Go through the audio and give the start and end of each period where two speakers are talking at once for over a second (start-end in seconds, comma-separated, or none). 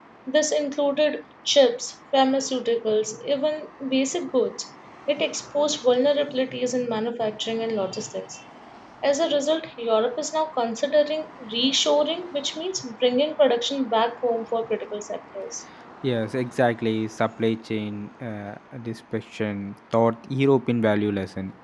none